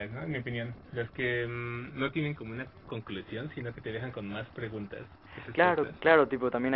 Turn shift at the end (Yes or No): Yes